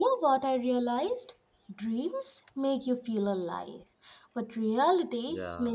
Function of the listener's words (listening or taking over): listening